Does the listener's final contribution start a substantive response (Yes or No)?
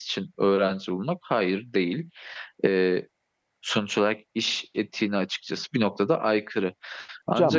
Yes